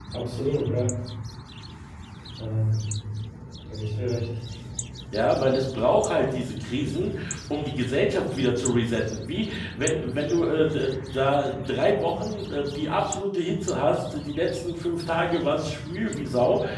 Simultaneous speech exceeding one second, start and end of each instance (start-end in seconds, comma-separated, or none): none